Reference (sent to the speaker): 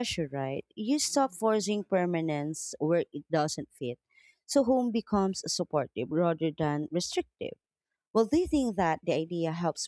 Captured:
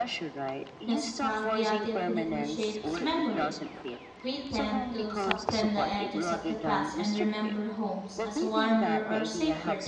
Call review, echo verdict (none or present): present